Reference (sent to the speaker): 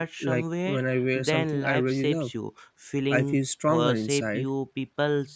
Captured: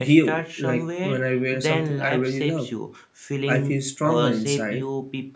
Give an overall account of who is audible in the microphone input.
echo only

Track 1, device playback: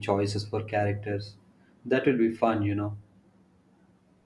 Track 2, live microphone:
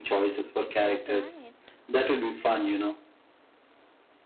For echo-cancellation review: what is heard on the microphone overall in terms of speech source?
both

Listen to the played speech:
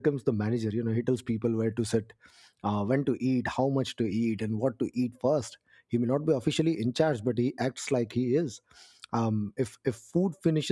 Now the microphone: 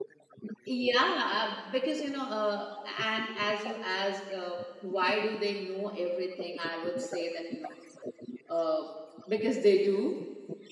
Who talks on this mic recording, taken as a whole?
both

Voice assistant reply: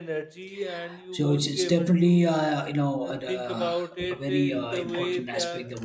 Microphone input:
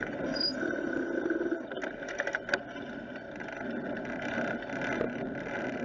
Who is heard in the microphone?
neither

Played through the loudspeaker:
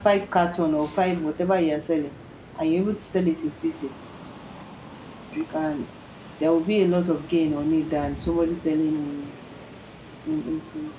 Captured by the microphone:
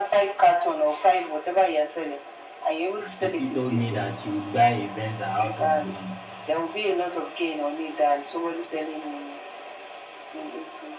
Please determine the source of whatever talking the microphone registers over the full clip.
both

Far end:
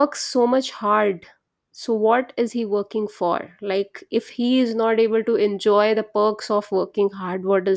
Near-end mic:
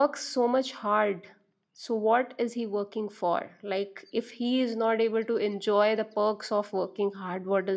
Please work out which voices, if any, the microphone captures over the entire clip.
echo only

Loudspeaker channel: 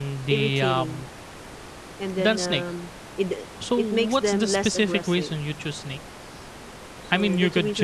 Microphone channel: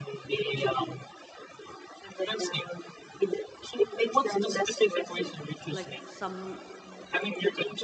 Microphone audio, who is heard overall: both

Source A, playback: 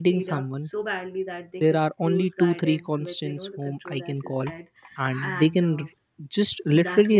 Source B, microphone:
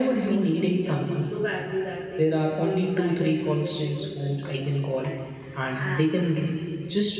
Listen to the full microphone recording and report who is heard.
echo only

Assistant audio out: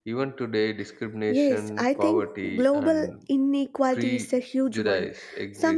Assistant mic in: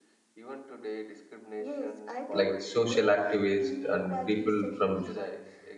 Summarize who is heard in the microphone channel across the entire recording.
both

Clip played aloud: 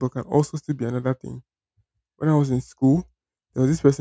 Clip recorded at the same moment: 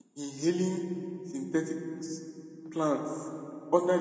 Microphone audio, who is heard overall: user only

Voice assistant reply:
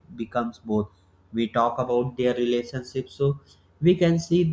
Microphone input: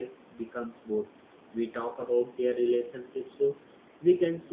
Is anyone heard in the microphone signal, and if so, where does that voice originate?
echo only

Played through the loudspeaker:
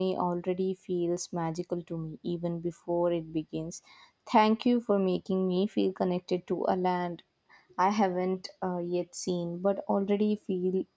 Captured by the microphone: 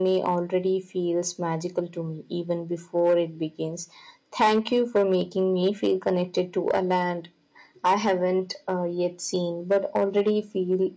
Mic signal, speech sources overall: echo only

